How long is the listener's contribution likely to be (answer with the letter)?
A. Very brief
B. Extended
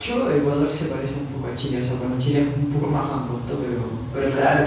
A